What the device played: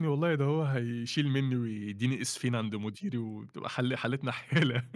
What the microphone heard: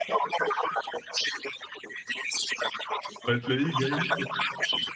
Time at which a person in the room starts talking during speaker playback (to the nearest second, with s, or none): 3 s